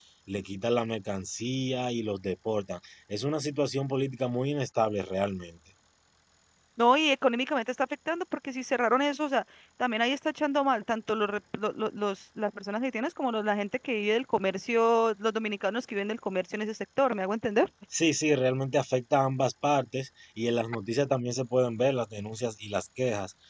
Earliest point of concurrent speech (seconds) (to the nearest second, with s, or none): none